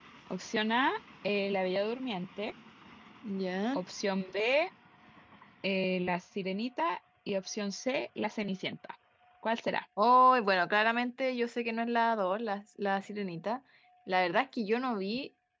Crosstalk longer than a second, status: none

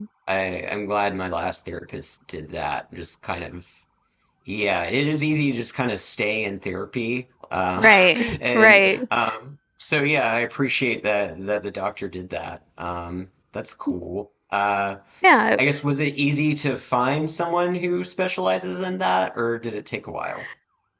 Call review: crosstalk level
present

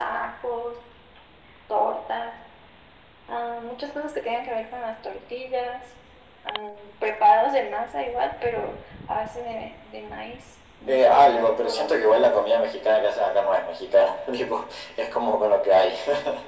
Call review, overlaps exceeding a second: present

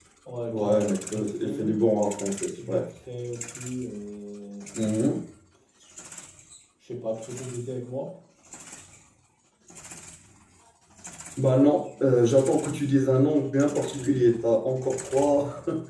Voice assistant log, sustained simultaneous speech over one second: present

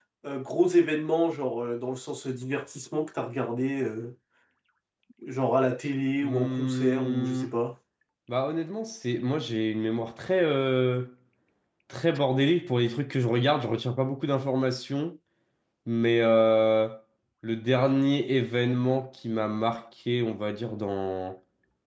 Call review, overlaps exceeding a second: present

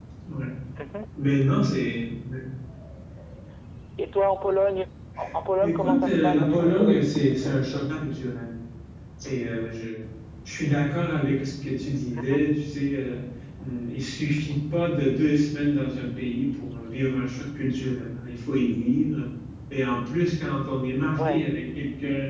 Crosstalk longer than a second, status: present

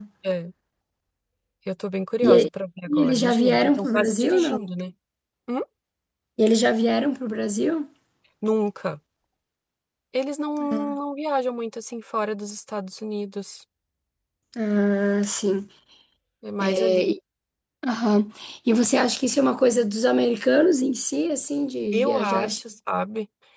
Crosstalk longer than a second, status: present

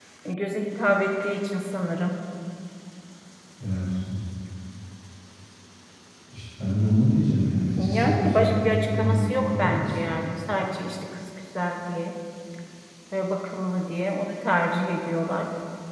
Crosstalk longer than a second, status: present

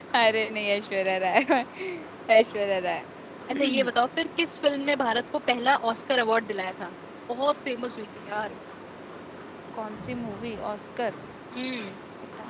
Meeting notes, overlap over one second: none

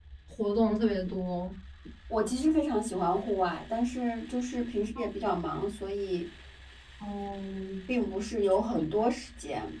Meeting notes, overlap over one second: none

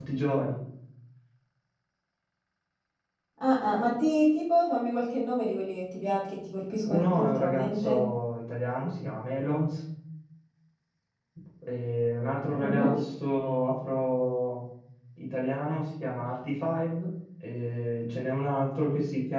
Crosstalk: present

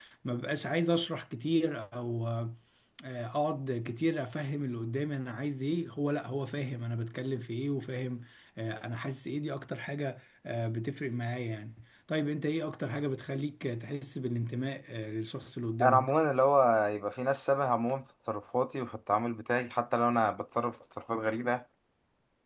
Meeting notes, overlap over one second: none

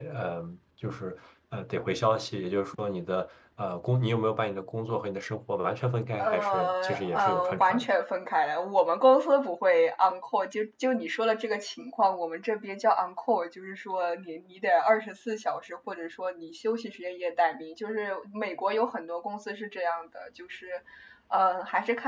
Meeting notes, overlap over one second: present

